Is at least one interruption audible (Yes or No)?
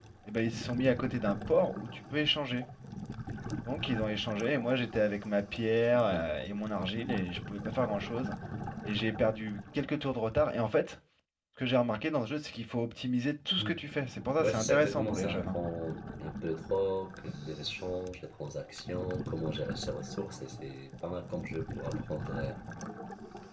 Yes